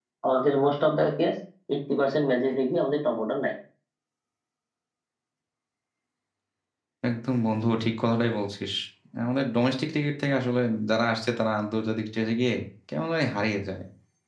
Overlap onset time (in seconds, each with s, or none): none